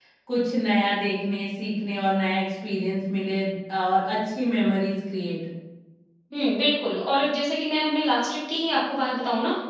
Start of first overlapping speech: none

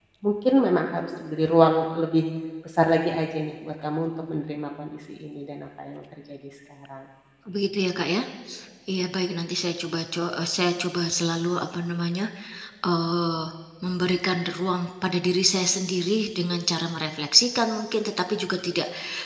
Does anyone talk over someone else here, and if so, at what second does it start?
none

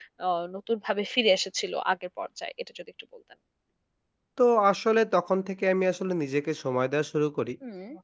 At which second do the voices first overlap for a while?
none

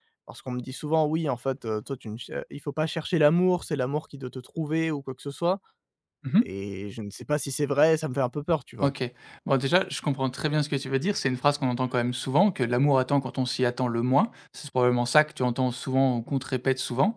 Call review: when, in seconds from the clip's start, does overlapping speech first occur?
none

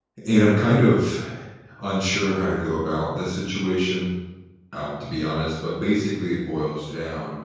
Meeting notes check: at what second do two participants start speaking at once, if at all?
none

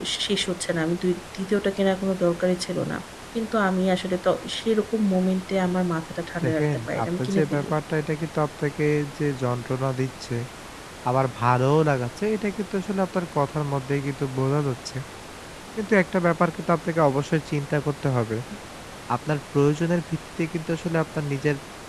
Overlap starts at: 6.4 s

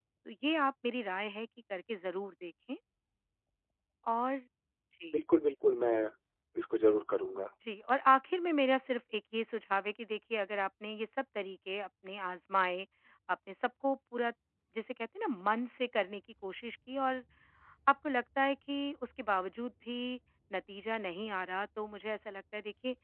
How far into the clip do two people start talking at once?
none

